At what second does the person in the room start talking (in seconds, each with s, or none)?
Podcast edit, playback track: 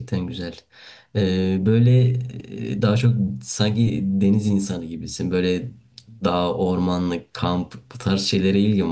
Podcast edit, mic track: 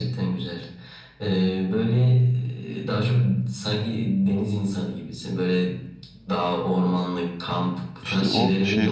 8.0 s